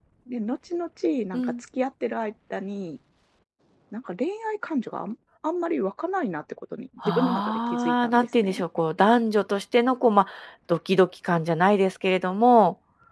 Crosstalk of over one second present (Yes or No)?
Yes